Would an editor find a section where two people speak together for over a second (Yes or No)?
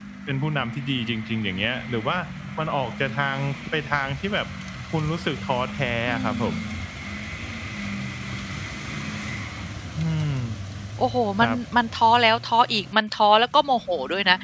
No